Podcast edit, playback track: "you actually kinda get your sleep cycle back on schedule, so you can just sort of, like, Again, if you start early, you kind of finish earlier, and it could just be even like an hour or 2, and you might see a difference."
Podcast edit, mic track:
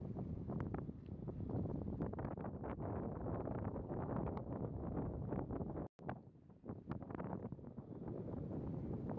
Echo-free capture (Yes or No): Yes